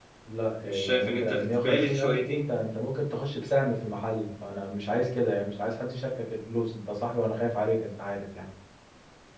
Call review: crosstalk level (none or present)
present